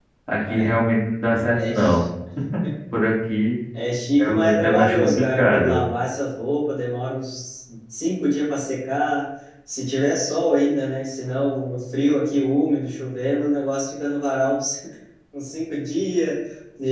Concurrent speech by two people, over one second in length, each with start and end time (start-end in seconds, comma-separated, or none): 4.2-5.8